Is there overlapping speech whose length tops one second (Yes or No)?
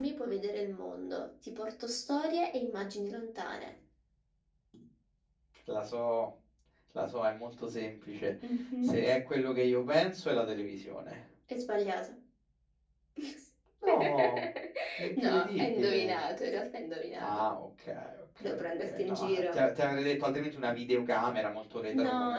Yes